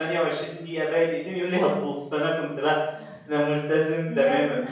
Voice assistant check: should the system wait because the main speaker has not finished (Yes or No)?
No